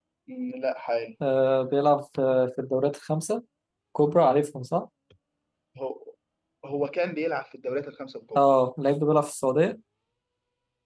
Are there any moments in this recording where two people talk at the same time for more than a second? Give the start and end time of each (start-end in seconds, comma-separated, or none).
none